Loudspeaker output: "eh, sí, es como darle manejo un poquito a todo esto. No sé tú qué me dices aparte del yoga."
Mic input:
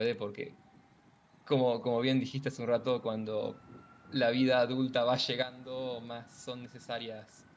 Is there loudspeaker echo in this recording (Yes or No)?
No